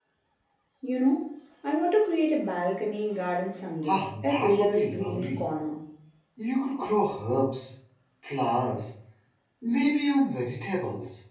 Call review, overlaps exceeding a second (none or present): present